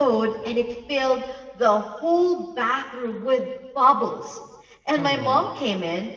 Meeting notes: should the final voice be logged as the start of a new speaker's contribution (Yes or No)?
No